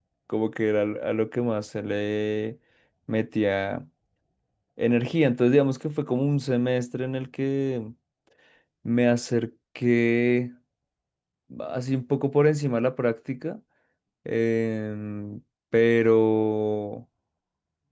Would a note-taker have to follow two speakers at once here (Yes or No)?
No